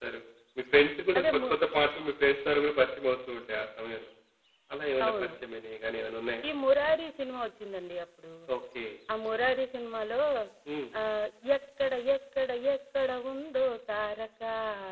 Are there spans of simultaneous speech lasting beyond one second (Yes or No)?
No